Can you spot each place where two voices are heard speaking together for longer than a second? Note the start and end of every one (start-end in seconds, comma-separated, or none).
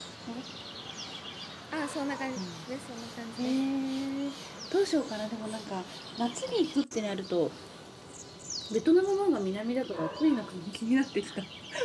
none